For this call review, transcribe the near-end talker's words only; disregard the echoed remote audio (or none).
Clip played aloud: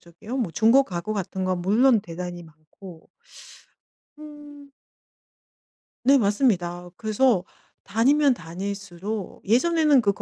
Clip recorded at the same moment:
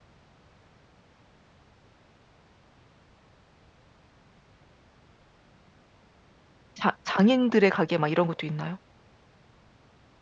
자 장인들의 가게 막 이런 것도 있나요?